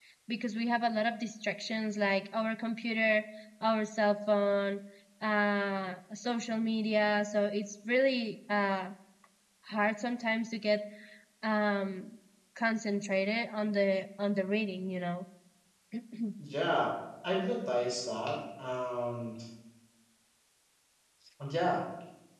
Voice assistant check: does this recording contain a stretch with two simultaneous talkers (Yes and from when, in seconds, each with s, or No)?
No